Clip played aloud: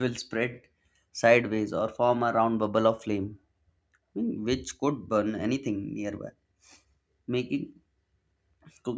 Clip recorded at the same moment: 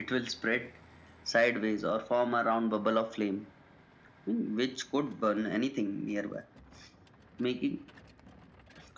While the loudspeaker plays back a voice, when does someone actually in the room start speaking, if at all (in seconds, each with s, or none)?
none